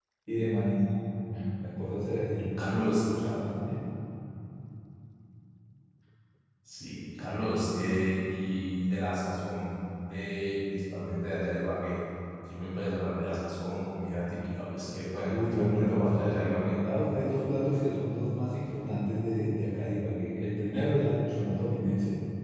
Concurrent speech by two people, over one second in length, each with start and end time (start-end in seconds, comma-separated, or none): 15.3-16.8